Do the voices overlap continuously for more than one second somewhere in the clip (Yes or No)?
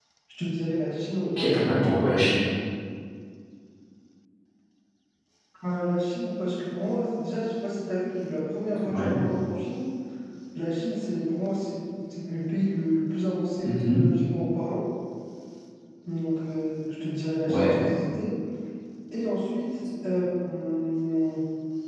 No